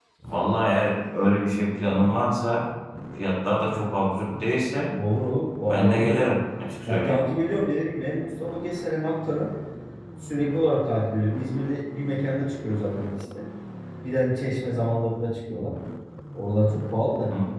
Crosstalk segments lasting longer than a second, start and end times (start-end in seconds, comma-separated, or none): none